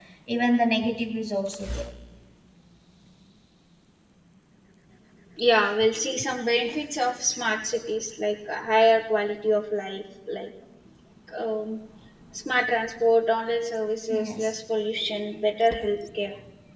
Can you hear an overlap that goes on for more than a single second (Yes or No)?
No